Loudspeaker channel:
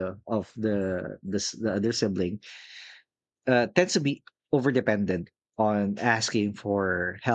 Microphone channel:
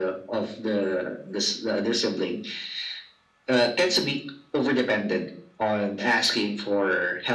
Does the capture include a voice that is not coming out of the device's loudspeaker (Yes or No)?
No